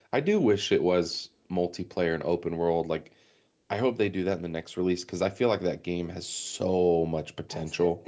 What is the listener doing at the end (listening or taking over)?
taking over